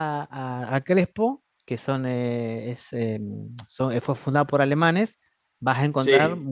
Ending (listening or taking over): listening